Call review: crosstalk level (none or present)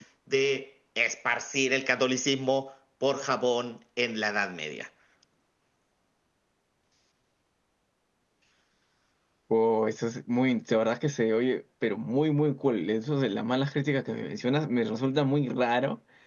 none